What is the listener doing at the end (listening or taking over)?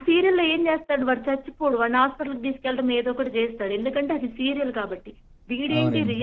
listening